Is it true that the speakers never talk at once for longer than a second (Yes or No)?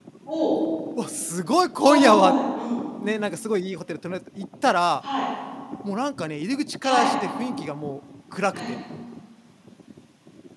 Yes